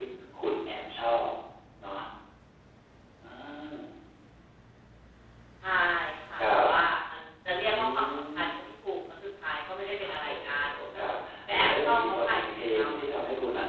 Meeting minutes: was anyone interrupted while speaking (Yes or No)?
Yes